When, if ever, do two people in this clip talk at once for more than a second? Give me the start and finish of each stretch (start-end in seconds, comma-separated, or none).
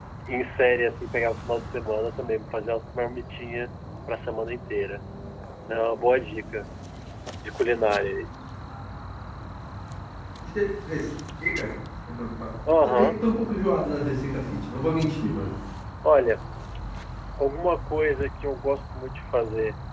none